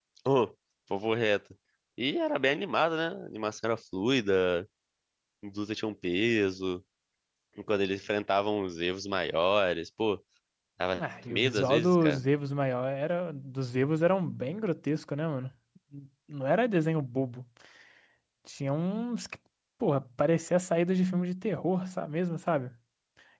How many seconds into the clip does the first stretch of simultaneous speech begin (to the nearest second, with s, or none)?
11 s